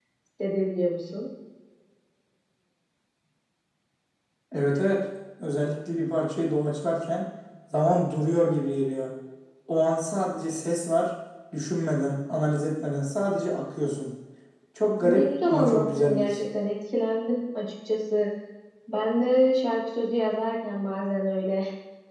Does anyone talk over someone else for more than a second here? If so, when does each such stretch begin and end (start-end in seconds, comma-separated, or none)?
15.0-16.4